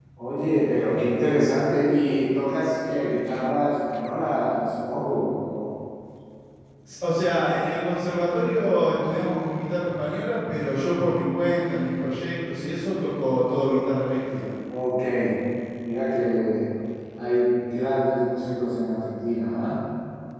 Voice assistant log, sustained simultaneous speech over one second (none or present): none